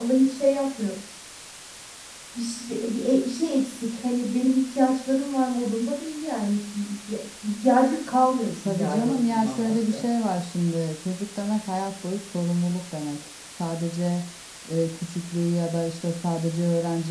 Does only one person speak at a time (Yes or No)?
No